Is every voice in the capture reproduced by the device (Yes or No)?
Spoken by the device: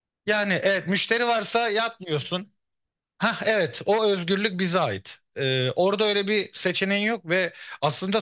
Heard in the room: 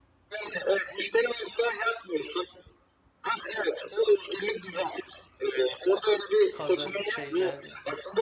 No